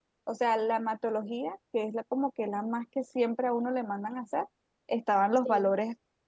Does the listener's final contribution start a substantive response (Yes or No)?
No